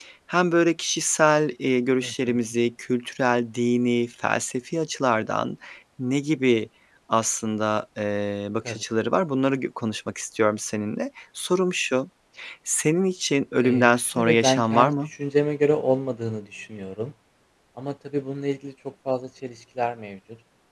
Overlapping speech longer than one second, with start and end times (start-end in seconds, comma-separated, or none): 13.6-15.1